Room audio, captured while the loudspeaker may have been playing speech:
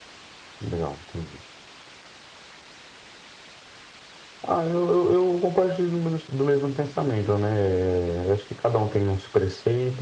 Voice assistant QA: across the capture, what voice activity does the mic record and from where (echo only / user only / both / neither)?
echo only